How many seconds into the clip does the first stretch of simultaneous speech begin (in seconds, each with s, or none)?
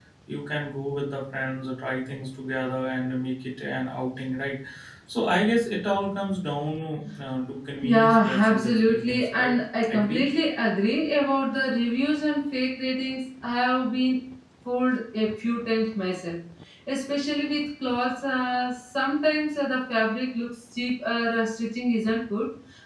7.8 s